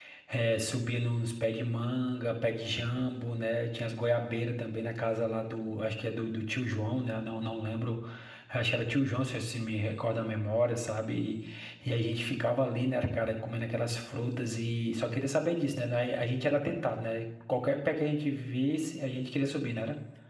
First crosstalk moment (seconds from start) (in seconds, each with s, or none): none